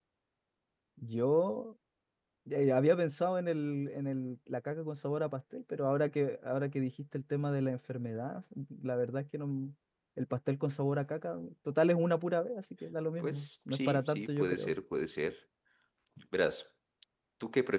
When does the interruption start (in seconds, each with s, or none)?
13.2 s